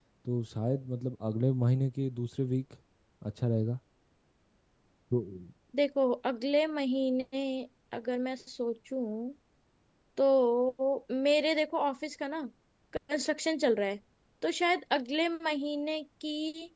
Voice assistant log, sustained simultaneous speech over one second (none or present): none